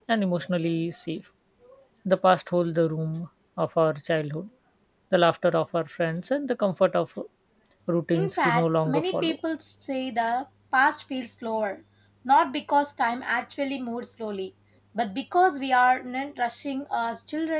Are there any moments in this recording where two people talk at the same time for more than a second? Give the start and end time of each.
8.1-9.4

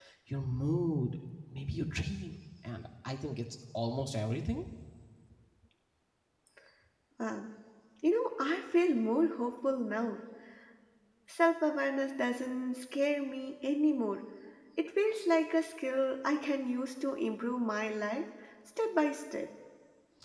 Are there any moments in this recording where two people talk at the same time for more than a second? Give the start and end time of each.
none

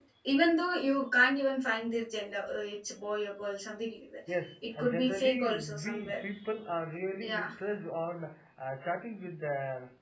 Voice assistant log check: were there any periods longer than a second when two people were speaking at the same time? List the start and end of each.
4.8-6.2

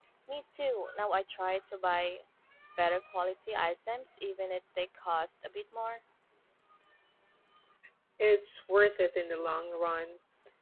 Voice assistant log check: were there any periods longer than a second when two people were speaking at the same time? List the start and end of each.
none

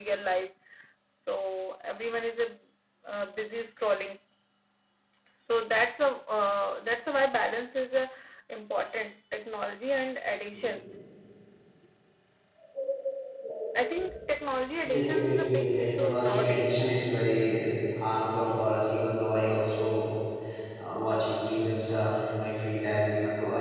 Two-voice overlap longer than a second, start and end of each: 14.8-16.8

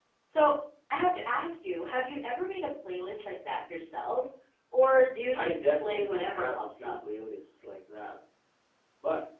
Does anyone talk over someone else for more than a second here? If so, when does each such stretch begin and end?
5.3-6.9

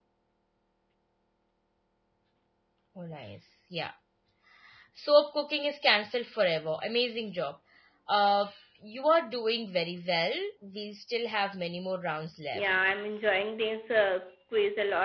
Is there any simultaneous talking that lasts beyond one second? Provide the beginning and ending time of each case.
none

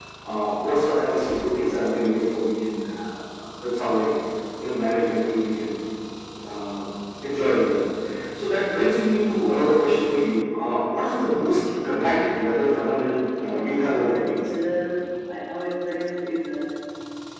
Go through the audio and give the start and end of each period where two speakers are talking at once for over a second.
12.6-14.5

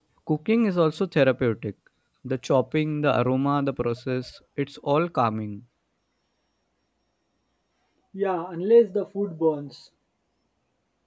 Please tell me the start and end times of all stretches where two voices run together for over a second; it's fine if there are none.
none

